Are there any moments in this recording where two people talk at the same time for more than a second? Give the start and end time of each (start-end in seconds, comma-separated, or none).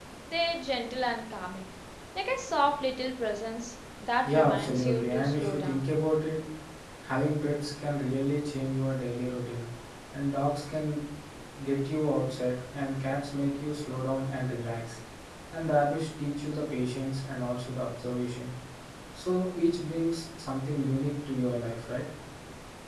4.2-5.9